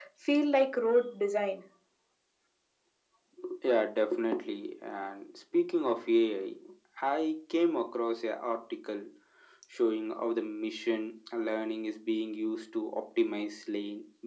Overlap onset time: none

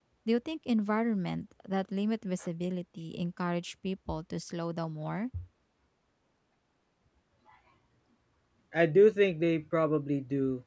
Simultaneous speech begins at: none

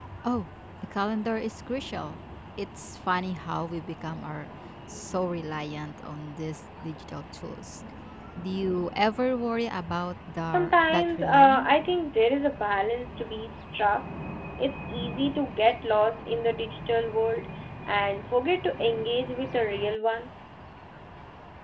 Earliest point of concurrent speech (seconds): 10 s

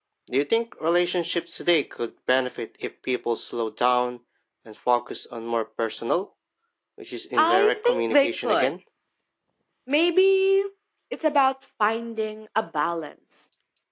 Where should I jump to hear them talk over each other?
7 s

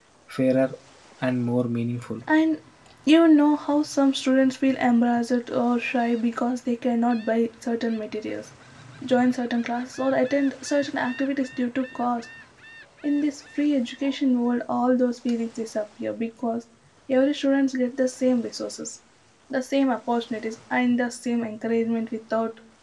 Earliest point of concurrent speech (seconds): none

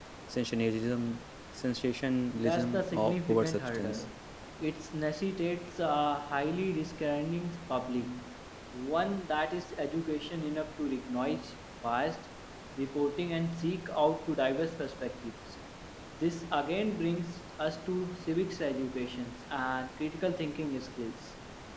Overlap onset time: 2 s

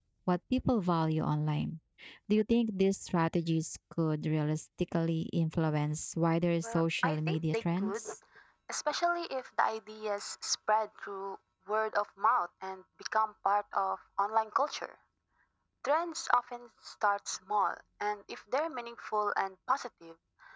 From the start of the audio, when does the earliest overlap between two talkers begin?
7 s

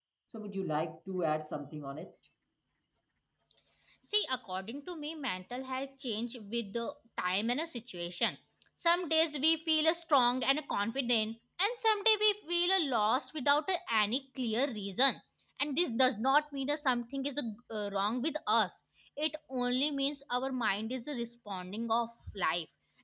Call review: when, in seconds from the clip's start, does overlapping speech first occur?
none

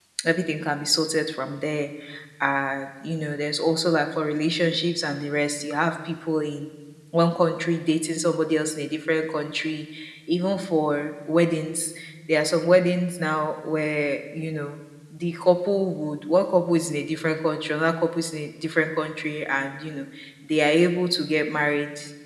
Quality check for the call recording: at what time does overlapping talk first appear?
none

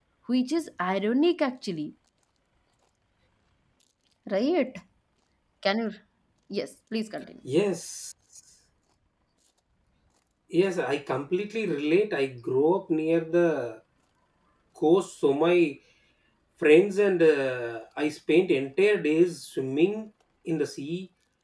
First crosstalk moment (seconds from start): none

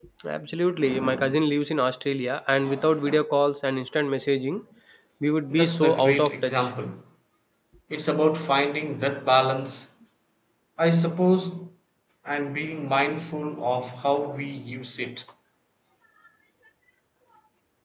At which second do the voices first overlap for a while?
6 s

